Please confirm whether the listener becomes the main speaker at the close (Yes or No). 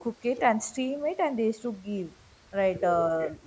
No